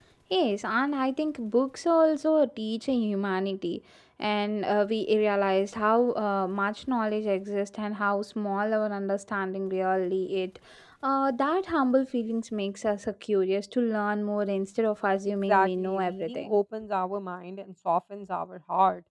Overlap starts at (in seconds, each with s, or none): 15.3 s